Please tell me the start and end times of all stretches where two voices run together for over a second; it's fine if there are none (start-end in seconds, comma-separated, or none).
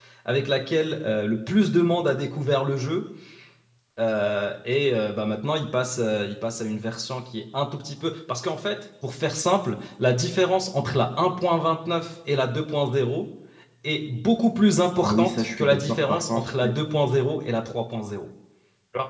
15.0-16.7